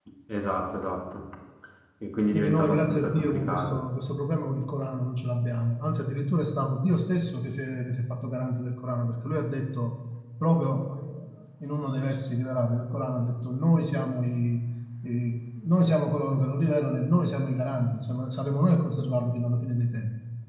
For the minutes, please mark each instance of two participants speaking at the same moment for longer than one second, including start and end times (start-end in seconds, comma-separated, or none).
2.3-3.8